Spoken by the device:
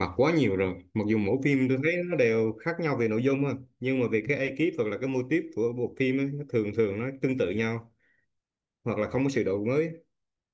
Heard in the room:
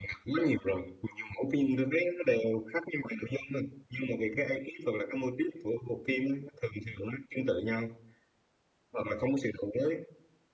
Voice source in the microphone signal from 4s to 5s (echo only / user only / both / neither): echo only